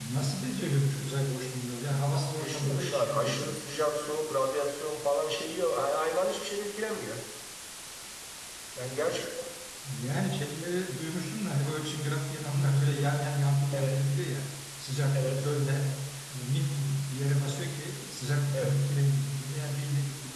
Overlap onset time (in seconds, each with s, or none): 2.4 s